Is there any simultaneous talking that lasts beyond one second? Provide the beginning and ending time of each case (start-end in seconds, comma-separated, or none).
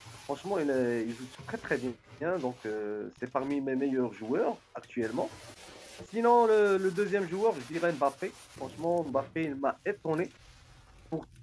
none